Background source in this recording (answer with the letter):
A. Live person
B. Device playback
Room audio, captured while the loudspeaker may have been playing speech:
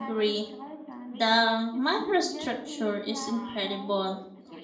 B